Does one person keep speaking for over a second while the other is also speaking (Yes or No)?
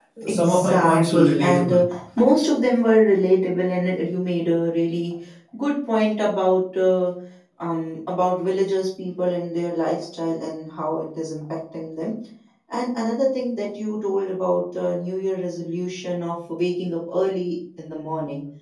Yes